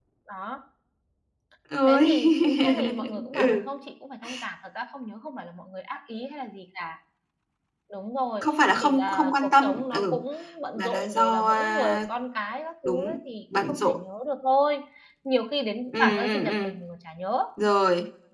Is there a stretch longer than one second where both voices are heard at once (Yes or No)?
Yes